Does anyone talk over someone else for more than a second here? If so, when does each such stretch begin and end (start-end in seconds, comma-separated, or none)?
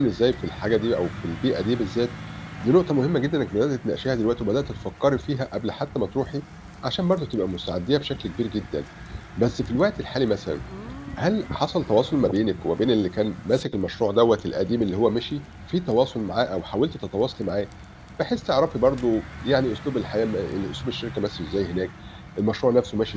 none